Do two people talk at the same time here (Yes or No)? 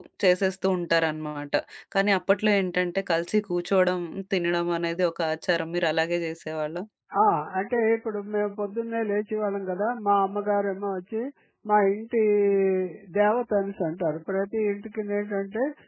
No